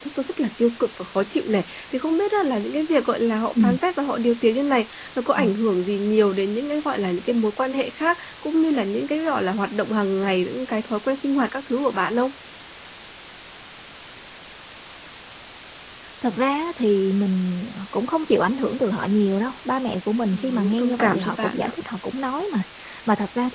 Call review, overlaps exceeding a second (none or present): present